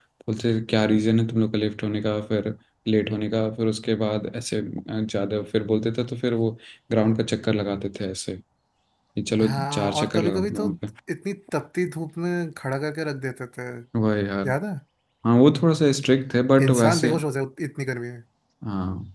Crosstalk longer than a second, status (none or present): present